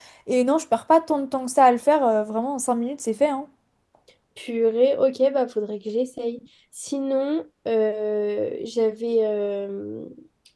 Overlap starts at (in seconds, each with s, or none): none